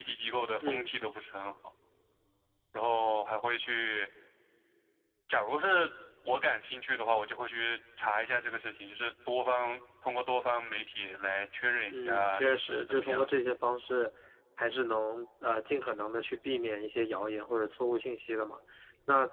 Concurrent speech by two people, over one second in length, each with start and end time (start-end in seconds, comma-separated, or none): 11.9-13.4